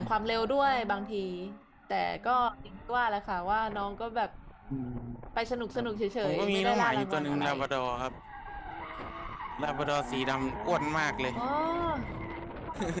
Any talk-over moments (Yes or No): Yes